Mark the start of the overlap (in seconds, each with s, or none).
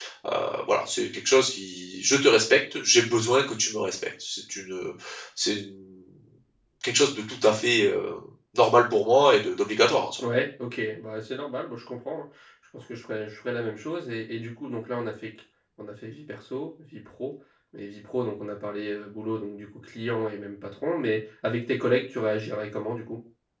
none